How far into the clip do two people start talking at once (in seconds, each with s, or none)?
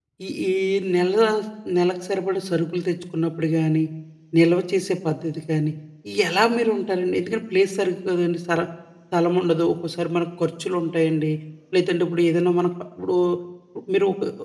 none